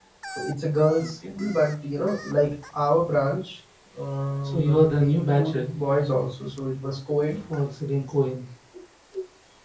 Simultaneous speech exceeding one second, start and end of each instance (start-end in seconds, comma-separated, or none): 4.4-5.6